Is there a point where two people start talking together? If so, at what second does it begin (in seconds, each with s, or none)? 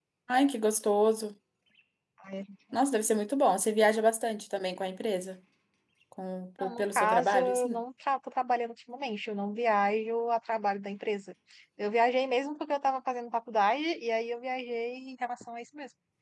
6.6 s